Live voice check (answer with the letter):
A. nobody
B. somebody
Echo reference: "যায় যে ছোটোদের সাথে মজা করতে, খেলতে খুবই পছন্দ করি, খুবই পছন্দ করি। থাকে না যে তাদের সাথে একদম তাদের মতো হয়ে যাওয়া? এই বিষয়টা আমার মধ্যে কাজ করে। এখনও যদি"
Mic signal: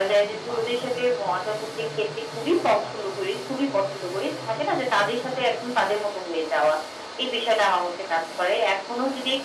B